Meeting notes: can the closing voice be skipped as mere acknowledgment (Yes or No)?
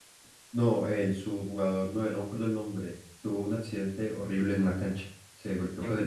Yes